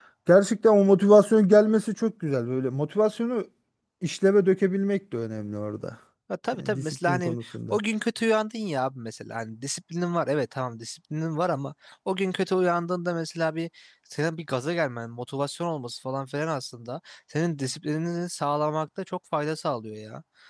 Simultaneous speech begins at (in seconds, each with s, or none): 6.6 s